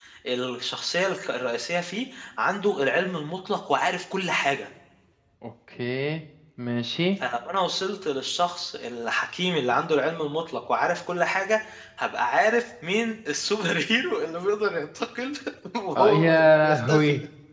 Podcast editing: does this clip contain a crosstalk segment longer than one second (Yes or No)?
Yes